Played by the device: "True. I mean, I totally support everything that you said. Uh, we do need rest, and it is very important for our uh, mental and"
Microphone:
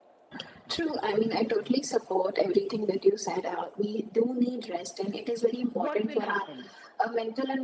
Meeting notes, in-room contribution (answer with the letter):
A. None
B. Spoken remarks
B